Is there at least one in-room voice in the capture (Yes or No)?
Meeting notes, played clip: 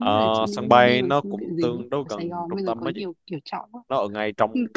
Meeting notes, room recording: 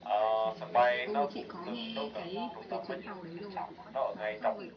Yes